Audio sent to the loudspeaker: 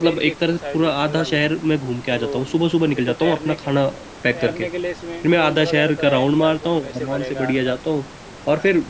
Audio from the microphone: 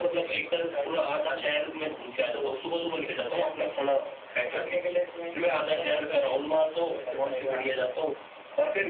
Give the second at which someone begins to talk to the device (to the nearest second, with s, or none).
none